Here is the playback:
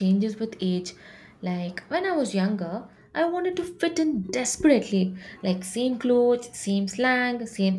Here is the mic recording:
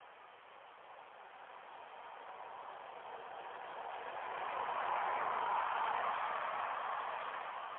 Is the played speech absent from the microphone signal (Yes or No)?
Yes